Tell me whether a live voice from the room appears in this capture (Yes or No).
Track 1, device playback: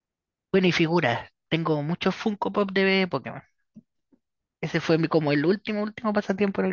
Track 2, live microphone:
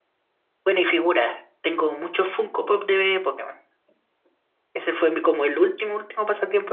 No